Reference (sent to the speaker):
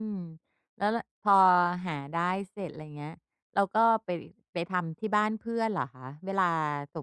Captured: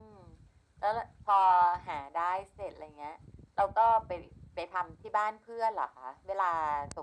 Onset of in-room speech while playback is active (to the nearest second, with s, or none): none